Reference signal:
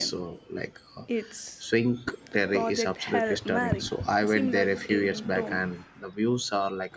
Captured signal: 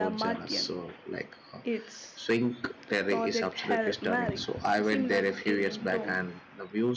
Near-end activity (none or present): none